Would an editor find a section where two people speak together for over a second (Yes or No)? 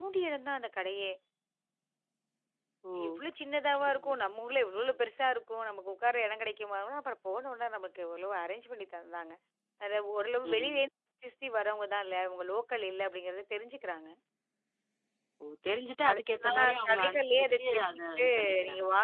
Yes